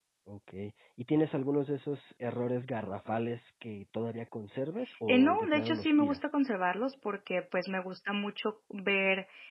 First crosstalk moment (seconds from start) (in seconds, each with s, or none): 5.1 s